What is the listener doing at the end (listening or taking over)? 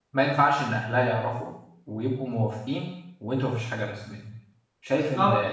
taking over